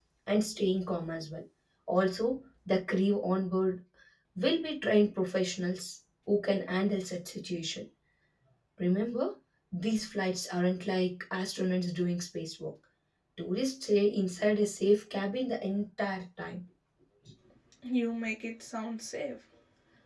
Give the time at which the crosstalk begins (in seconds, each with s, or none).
none